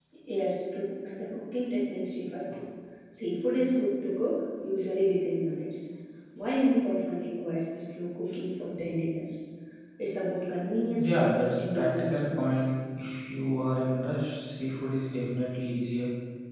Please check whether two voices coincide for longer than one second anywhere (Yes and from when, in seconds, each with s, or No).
Yes, from 11.0 s